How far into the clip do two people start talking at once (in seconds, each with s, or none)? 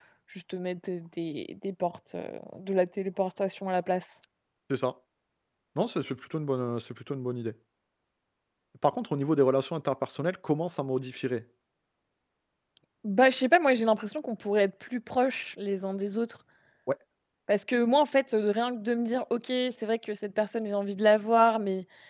none